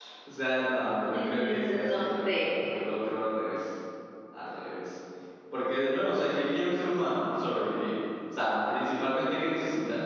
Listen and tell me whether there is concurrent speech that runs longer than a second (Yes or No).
Yes